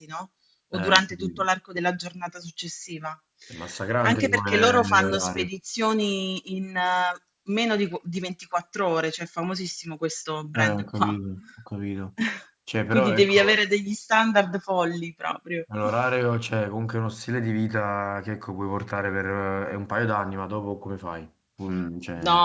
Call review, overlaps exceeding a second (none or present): present